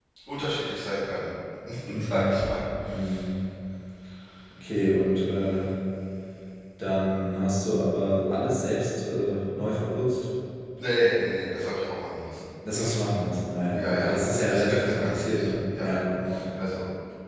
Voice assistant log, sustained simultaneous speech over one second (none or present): present